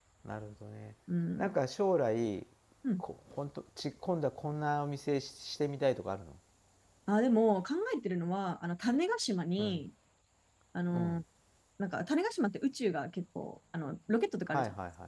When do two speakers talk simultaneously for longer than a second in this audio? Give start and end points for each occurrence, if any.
none

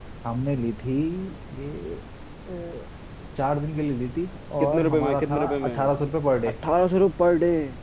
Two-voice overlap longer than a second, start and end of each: 4.6-5.9

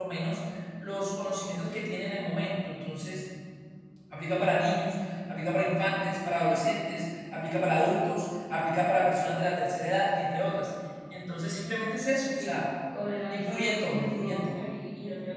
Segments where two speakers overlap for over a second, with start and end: 13.3-14.7

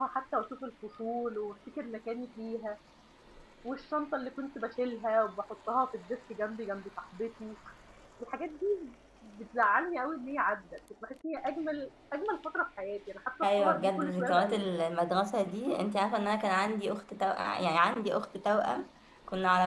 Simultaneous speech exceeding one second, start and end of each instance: 13.4-14.8

